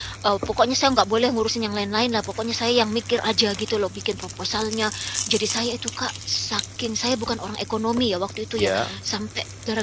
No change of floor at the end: Yes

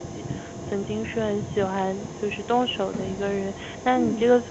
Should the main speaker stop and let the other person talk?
No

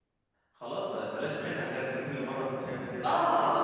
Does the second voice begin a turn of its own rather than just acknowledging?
Yes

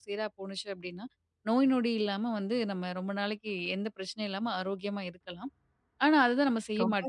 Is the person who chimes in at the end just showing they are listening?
No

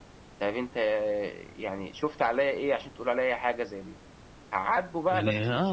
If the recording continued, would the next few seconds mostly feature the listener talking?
Yes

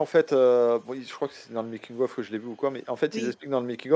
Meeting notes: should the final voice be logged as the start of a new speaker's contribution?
No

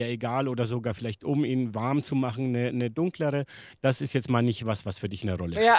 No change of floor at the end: No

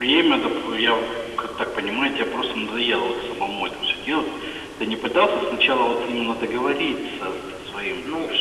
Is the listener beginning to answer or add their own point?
No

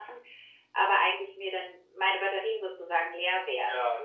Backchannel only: No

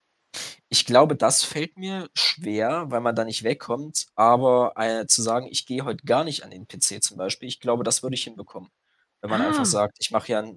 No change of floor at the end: Yes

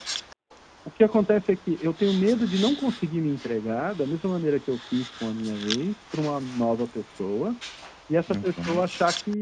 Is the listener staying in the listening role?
Yes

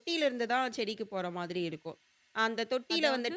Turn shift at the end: No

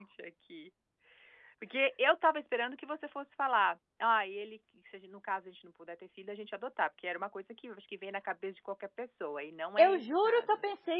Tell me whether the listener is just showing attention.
No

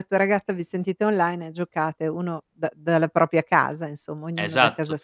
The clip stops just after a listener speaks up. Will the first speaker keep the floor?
No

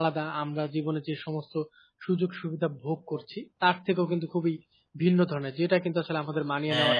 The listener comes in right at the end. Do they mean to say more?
No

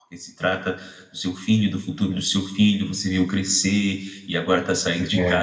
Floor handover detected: No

